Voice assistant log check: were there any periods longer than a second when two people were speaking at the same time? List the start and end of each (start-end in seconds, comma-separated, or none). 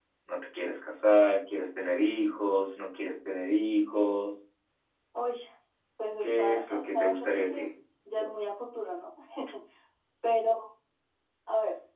6.2-7.7